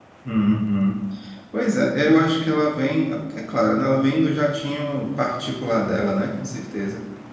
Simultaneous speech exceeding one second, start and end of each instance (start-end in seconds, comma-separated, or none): none